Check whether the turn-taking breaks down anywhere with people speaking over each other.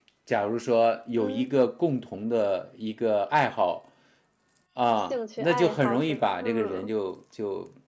Yes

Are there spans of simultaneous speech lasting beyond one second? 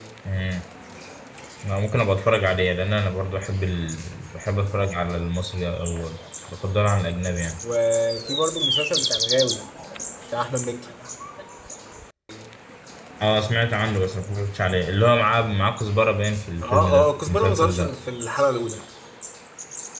Yes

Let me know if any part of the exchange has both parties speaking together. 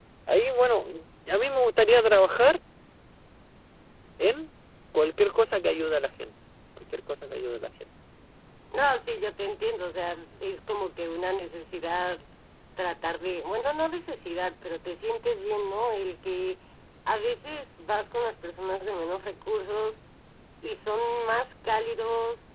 No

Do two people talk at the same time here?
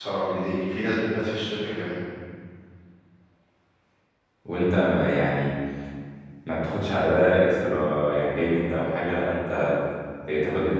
No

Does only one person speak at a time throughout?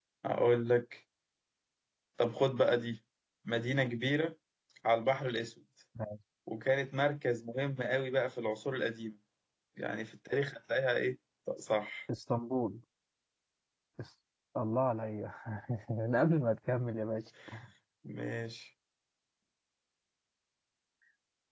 Yes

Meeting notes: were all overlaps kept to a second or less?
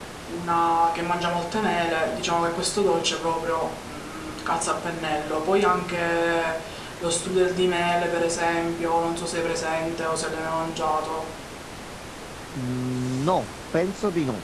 Yes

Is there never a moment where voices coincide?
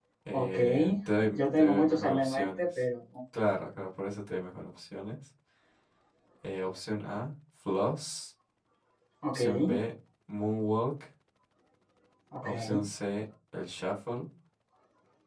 No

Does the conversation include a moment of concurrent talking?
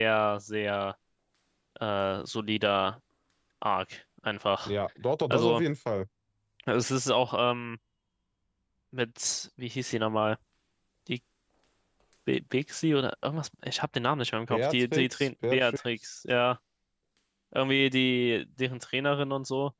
Yes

